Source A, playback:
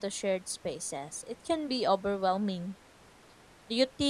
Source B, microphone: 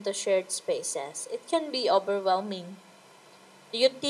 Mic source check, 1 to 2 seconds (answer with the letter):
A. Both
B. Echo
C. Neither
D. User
B